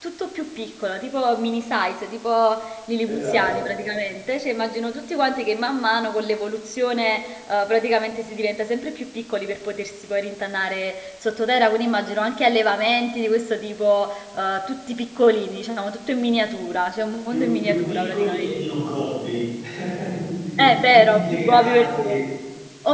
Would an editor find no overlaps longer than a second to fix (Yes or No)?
No